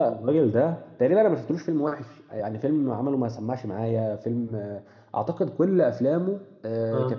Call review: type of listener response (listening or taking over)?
listening